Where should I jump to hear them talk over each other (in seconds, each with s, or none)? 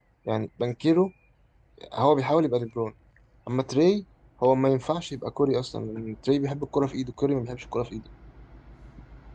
none